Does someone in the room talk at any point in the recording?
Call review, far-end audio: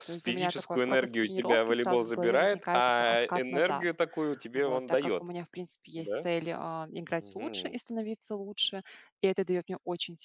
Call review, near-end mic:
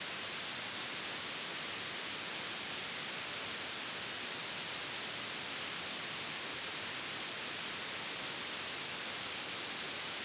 No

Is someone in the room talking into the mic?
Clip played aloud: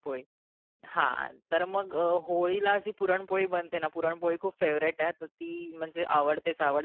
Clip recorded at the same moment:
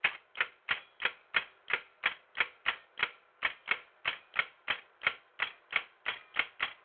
No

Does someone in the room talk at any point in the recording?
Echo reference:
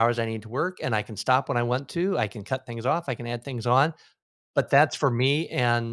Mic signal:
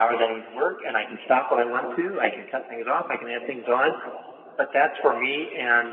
No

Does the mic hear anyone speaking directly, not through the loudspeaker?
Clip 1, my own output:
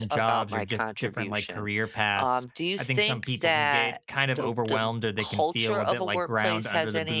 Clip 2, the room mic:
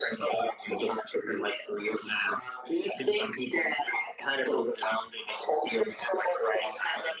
No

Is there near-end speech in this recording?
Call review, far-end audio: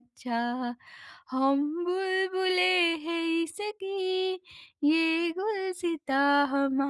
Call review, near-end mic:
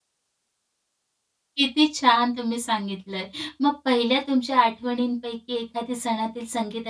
Yes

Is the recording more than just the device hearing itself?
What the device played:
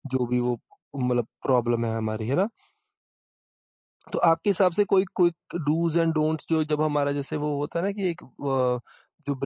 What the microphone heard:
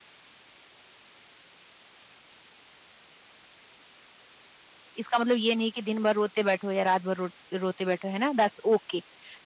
Yes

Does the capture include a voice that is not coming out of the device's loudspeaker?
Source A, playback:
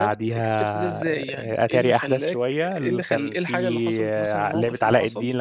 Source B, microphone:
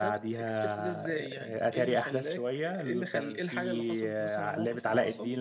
No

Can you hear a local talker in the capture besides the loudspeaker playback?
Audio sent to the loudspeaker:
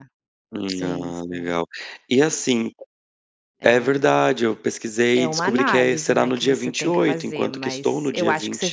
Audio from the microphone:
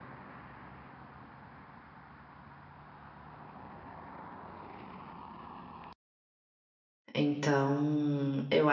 Yes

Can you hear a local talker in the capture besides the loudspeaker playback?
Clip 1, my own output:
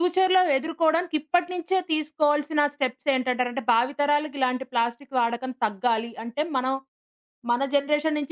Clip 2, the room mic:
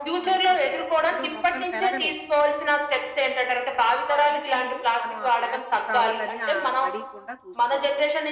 Yes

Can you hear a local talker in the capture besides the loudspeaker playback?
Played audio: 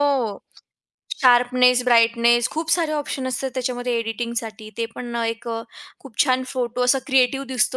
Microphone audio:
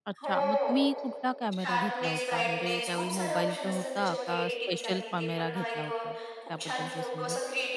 Yes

